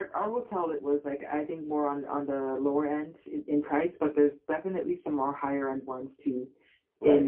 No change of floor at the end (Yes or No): No